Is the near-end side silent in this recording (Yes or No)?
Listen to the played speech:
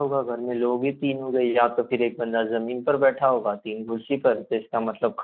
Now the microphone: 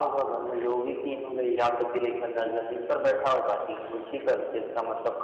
Yes